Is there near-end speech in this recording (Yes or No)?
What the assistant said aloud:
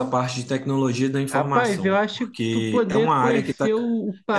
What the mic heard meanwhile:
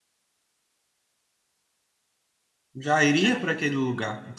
Yes